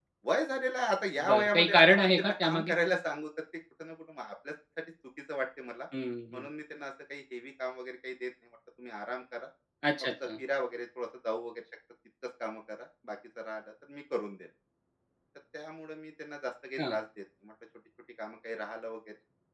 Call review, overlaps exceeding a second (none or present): present